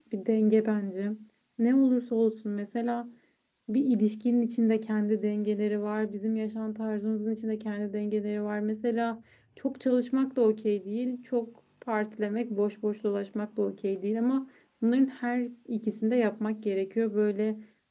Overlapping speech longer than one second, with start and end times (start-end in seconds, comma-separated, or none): none